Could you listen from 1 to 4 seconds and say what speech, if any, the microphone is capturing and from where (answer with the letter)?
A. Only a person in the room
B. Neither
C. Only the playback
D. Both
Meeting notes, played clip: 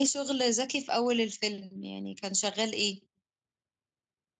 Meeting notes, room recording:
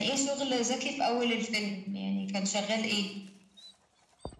C